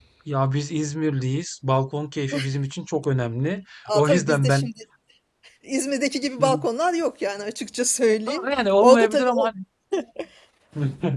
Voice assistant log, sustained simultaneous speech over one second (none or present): present